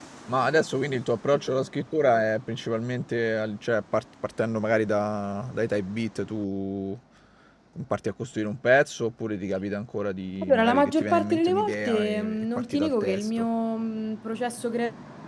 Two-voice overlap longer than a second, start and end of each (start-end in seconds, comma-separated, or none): 10.5-13.5